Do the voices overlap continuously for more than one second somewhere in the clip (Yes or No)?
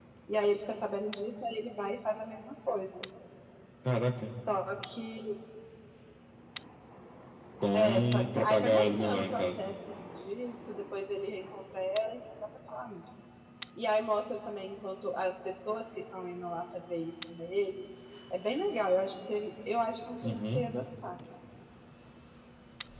Yes